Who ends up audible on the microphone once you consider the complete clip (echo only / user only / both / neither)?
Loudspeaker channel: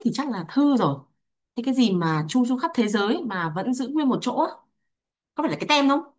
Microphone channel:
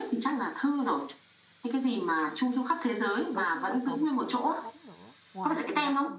both